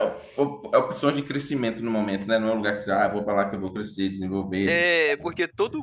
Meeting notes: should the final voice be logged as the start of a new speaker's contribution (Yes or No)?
Yes